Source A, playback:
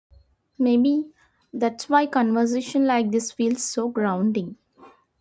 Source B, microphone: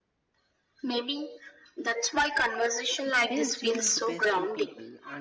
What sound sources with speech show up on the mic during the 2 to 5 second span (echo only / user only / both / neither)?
both